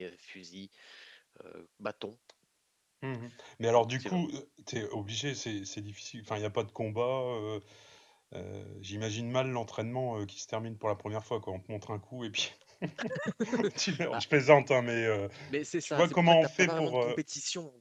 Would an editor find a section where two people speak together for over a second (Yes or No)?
Yes